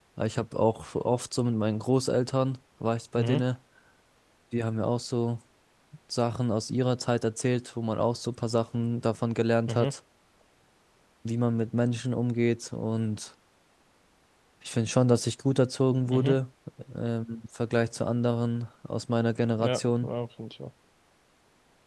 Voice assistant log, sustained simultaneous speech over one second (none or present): none